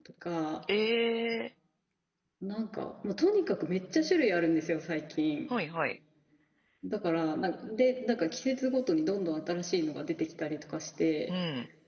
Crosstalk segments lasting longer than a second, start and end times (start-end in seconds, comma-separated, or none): none